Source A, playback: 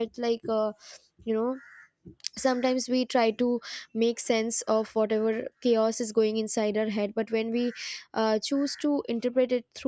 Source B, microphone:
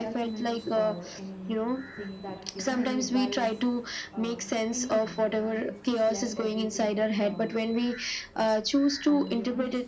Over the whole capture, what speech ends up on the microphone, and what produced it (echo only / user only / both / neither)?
both